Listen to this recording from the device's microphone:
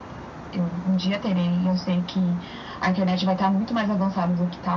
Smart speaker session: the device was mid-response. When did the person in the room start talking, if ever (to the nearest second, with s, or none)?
none